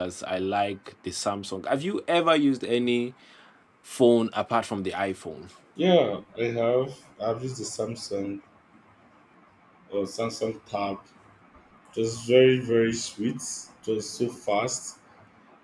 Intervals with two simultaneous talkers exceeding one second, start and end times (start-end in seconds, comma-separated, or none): none